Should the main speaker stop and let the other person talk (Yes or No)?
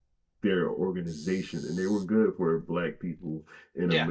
No